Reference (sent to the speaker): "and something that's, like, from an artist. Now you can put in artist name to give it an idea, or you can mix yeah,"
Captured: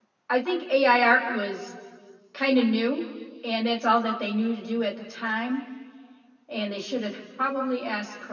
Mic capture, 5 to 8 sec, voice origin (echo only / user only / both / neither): user only